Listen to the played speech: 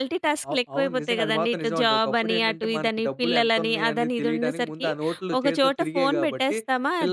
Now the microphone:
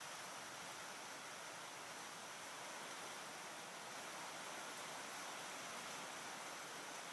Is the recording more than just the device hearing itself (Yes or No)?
No